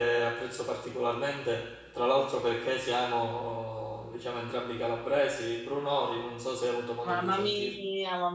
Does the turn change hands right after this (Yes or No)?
Yes